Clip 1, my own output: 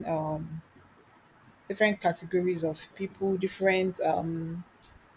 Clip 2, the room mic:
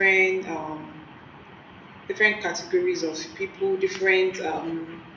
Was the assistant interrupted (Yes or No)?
No